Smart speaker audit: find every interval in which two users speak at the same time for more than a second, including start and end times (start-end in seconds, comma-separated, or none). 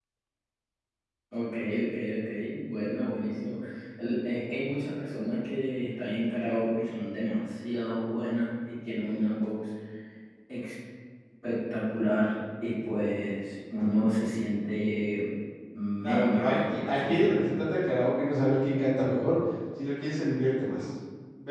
16.0-17.5